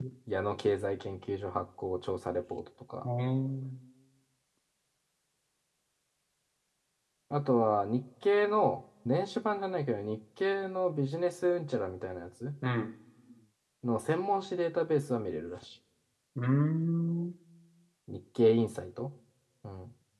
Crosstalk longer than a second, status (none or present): none